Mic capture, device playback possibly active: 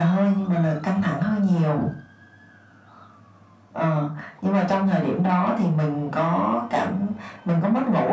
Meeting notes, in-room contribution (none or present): none